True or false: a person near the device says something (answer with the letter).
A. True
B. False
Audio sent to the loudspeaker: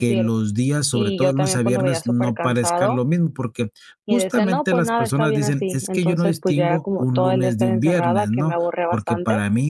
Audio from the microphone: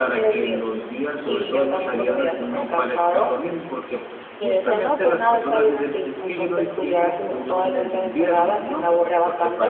B